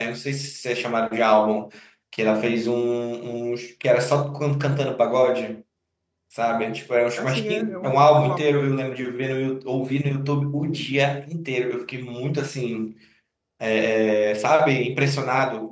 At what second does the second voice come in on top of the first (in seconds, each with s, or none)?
7.2 s